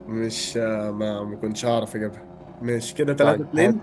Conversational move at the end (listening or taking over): taking over